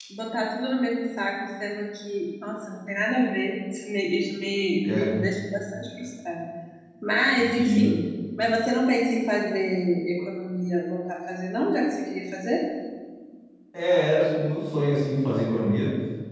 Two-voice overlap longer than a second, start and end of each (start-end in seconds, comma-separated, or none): none